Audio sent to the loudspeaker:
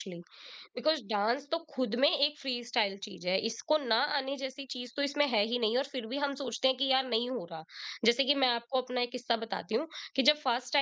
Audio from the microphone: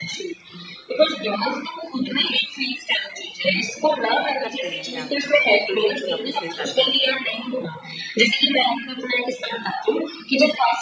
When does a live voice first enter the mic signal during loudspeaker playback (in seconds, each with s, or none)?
4.4 s